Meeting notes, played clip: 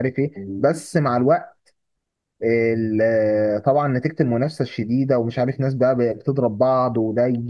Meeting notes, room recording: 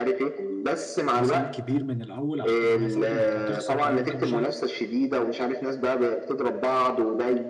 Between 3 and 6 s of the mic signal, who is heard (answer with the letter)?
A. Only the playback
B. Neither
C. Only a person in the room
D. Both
D